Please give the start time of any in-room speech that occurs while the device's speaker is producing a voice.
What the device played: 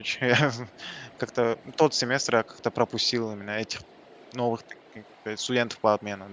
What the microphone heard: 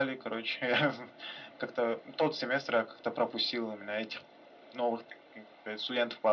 none

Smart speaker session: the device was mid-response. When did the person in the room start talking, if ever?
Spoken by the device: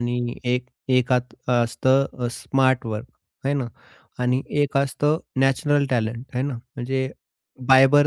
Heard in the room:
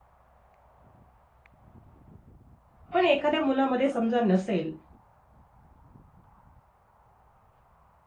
2.9 s

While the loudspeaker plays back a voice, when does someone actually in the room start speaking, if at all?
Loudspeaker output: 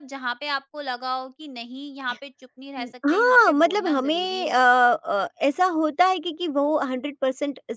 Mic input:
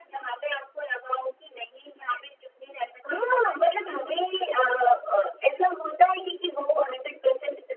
none

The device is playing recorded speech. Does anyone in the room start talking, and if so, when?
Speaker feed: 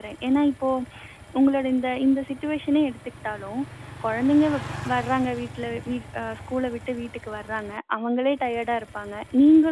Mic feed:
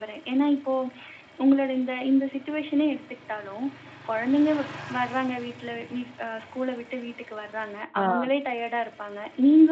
8.0 s

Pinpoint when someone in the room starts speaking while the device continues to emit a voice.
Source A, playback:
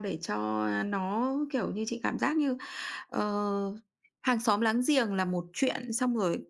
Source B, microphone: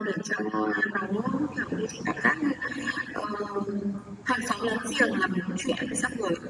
none

